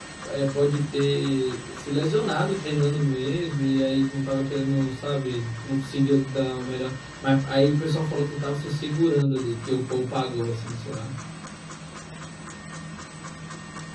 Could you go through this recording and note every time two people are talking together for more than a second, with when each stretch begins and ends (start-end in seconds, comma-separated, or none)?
none